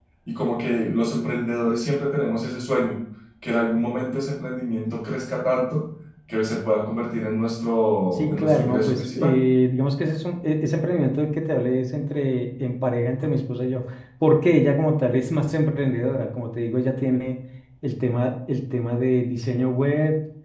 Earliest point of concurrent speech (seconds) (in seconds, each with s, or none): 8.1 s